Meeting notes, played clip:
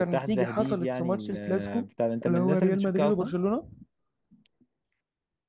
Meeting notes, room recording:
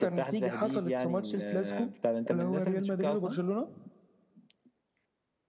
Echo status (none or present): present